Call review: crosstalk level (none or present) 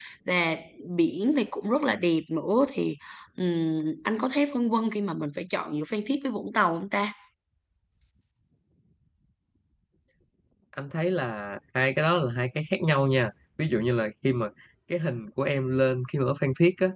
none